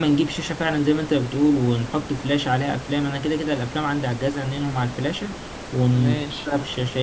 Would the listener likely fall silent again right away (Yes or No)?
Yes